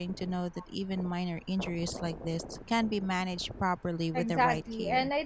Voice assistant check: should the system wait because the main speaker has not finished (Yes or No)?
No